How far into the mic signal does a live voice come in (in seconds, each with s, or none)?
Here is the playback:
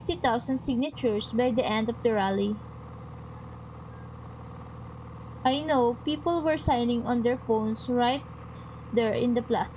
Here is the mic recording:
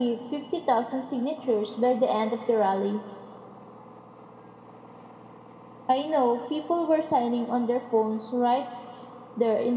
none